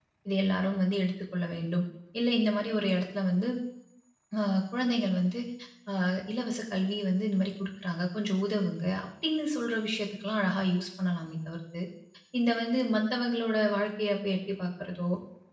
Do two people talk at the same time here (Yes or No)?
No